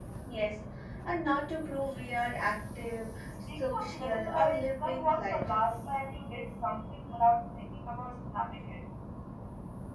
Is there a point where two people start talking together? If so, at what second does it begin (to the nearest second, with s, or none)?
3 s